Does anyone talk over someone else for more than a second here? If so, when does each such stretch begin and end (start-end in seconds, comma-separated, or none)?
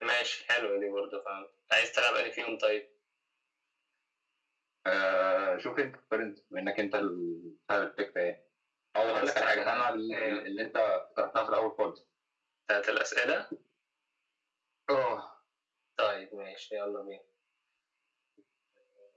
9.0-10.4